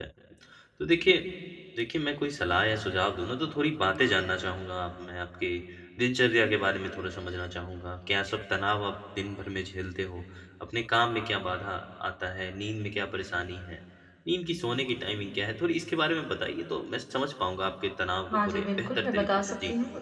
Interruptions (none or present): present